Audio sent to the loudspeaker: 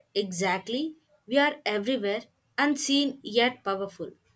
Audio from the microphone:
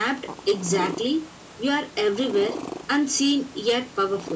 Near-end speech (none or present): none